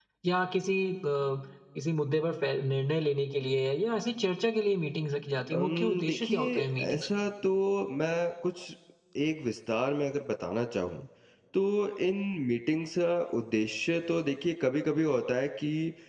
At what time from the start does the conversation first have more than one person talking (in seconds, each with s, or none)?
5.5 s